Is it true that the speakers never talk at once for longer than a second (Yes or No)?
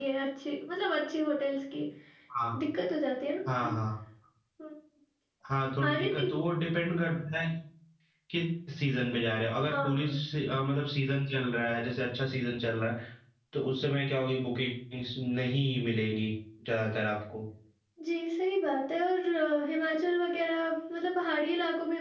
Yes